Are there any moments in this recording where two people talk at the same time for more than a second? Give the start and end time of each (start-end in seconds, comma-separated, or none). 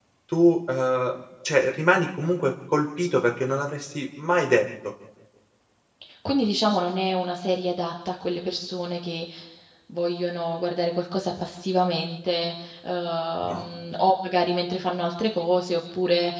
none